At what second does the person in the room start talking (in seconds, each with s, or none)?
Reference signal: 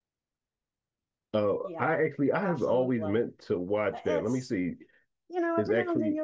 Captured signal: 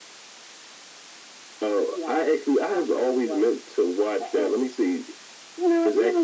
none